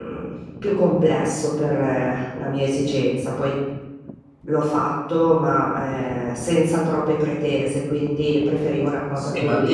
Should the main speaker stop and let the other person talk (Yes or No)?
Yes